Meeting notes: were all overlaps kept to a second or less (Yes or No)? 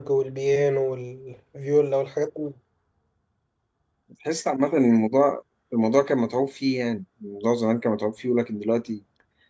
Yes